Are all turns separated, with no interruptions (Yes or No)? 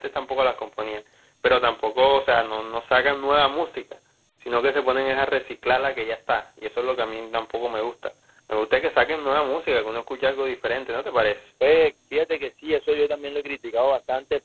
Yes